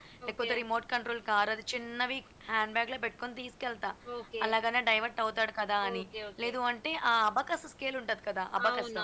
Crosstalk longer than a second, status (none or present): none